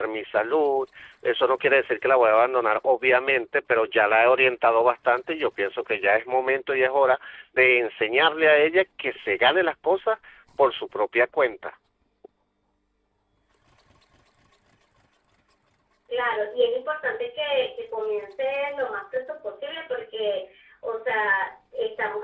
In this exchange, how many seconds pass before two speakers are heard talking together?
none

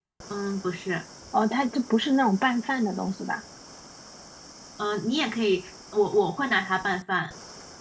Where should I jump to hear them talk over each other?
none

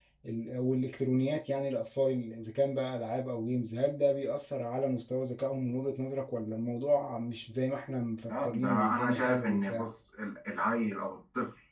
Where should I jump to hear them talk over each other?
8.2 s

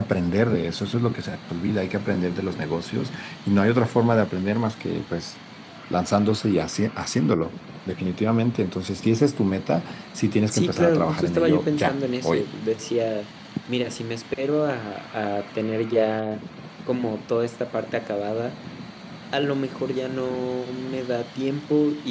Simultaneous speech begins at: 10.5 s

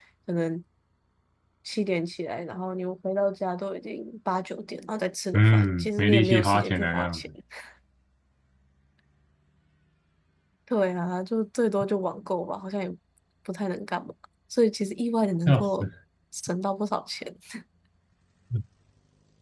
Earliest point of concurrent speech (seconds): 5.3 s

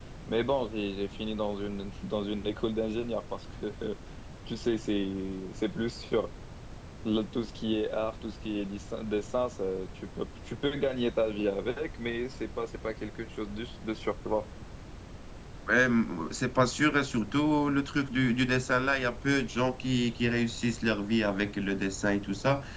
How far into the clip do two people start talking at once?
none

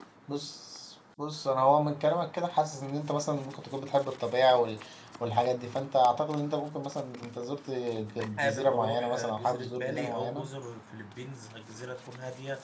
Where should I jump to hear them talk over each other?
8.4 s

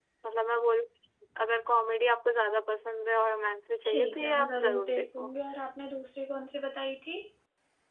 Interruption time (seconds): 3.8 s

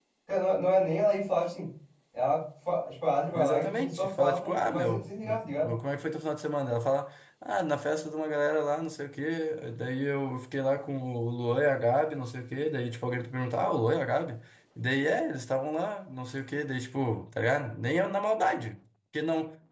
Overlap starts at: 3.4 s

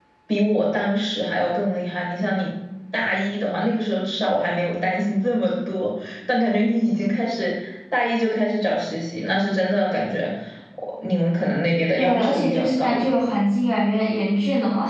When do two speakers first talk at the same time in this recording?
12.0 s

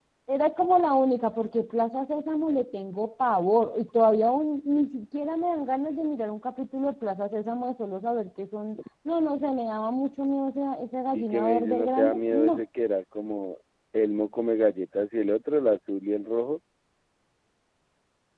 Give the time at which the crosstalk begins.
11.1 s

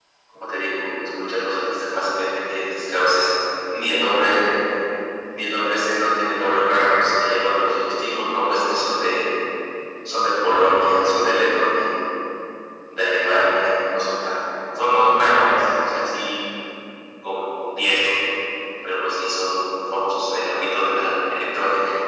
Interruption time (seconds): none

